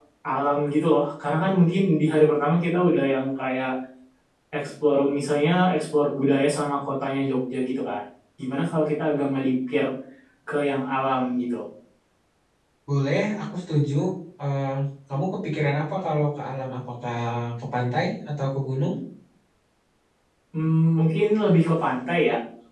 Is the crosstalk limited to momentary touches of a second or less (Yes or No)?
Yes